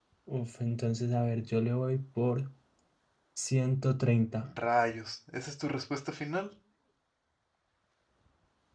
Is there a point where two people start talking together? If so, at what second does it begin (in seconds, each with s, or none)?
none